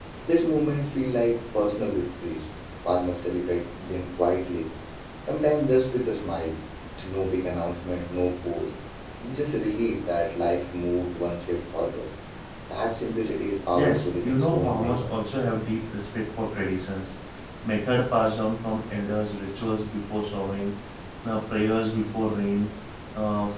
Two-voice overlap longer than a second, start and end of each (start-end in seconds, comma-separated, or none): 13.7-15.0